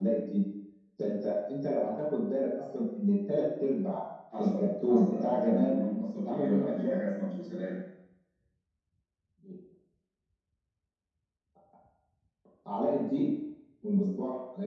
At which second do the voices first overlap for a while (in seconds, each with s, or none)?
4.3 s